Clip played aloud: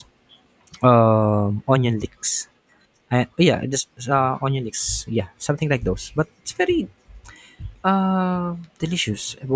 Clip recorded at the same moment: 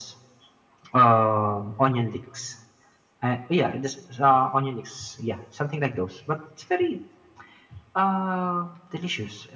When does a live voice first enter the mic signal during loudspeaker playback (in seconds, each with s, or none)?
none